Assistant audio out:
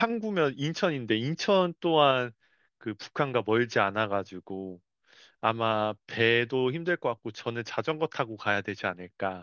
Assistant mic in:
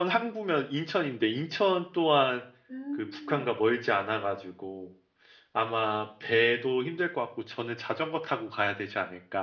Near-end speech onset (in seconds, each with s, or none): 2.7 s